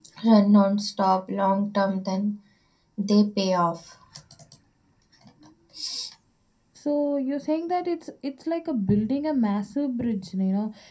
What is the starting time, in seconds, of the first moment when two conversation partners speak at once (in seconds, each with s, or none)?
none